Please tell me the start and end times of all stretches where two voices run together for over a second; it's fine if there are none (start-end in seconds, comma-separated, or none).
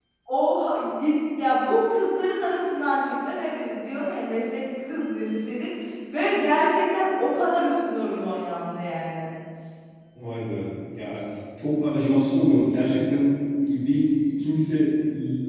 none